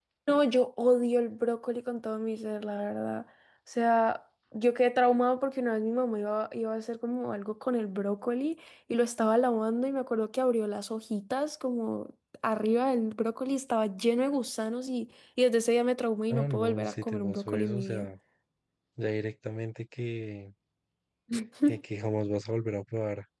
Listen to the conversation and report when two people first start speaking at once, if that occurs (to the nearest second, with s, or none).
16 s